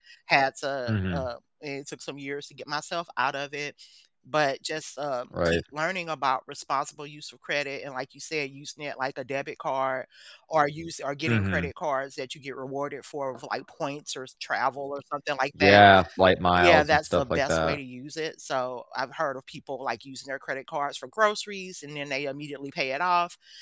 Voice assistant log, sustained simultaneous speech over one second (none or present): present